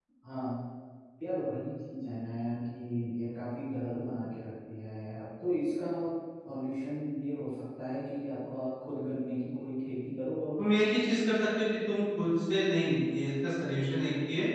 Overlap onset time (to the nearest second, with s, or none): none